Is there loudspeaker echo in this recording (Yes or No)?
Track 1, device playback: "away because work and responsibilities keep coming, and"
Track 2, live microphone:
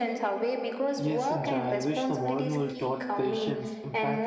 Yes